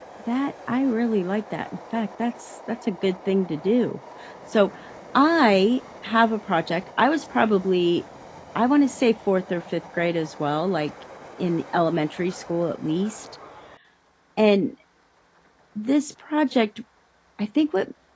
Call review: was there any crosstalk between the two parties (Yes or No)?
No